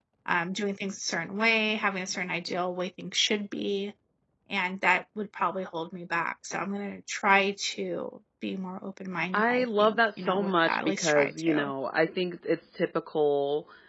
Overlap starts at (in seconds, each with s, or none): 9.3 s